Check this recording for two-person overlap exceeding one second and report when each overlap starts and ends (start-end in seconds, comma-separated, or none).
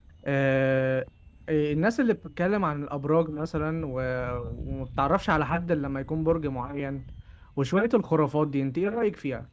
none